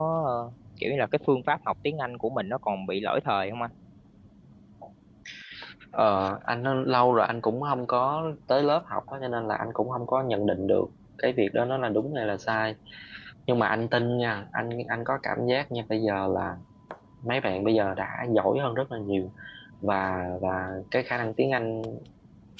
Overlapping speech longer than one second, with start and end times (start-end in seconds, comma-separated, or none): none